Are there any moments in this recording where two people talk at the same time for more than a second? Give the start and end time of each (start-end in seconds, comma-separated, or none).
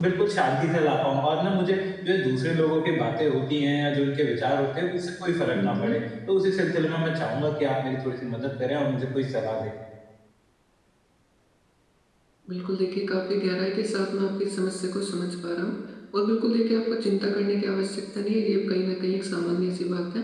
none